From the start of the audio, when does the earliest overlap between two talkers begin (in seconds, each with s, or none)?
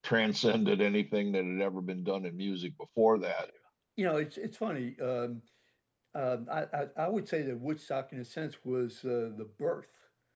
none